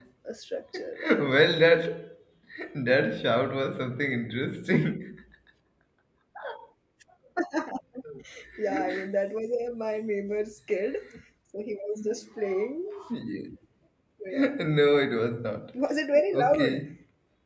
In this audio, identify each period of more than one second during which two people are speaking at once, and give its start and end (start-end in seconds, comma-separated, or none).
none